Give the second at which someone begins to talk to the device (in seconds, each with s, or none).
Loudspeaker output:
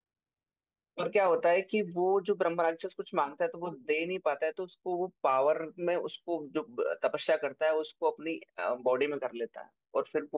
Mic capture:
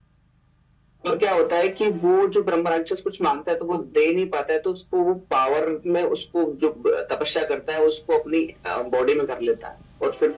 none